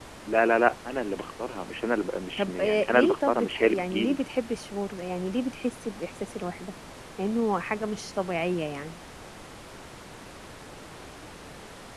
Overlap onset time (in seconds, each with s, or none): 2.4 s